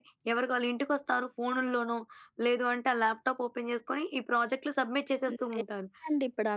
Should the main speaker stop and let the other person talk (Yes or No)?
Yes